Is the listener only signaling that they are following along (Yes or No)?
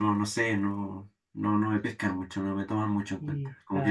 No